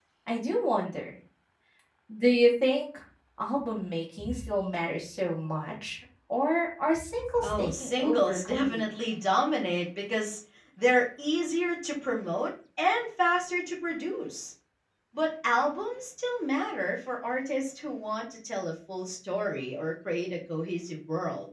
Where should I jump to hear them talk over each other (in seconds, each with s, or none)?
7.4 s